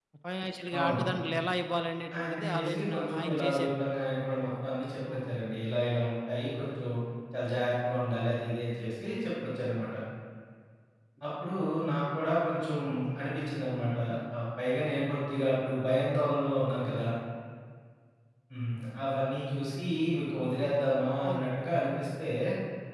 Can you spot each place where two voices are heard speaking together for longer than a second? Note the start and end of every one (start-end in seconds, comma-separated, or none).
2.2-3.8